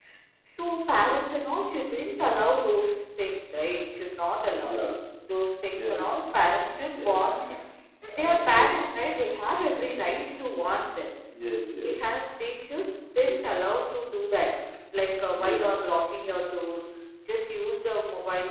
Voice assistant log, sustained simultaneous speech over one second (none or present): none